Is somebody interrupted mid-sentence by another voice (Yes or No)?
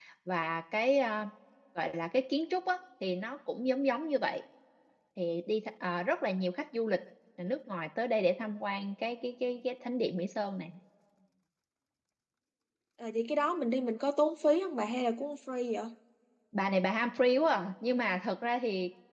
No